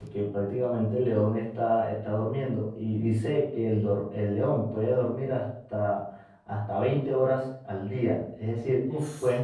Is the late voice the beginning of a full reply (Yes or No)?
No